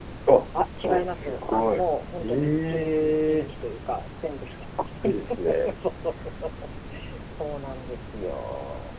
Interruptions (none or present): present